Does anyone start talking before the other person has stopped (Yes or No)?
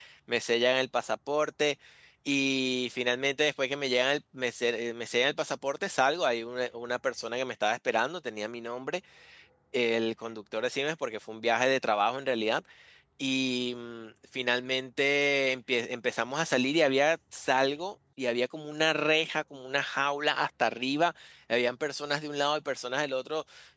No